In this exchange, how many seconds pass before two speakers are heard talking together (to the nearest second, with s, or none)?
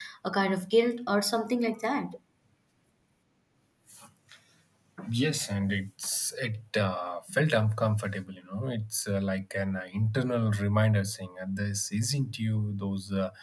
none